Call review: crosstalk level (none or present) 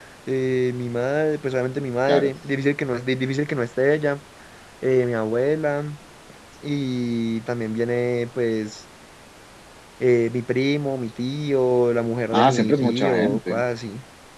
present